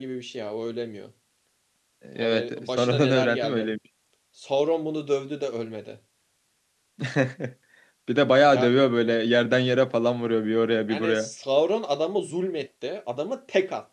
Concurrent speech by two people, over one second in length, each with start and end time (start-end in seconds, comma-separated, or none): 2.2-3.7